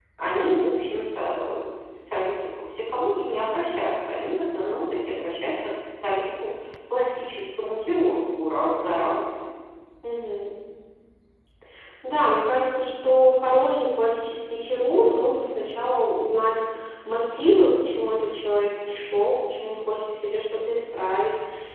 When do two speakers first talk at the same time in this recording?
none

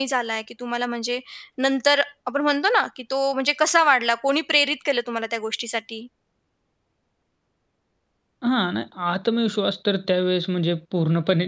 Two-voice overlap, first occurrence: none

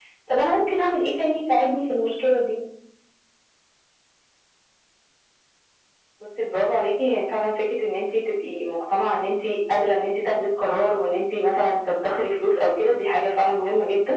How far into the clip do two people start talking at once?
none

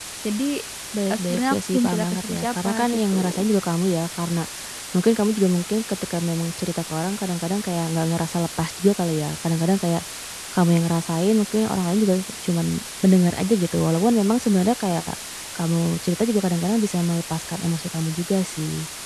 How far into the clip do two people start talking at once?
1.1 s

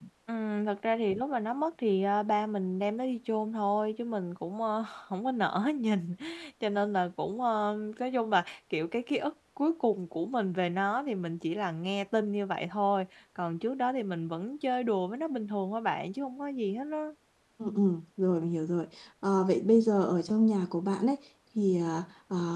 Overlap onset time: none

